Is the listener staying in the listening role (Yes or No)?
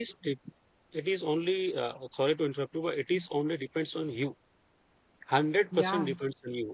Yes